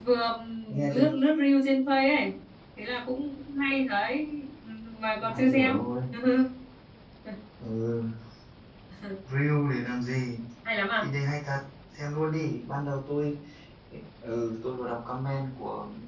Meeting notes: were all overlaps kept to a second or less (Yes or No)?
Yes